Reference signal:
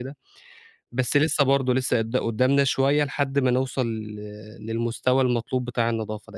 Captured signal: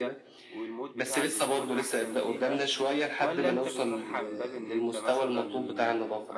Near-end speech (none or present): present